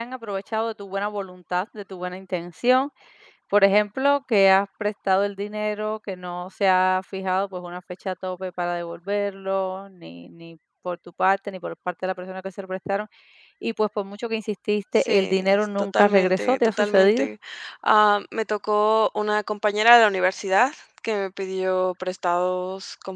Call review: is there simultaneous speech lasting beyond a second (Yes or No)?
Yes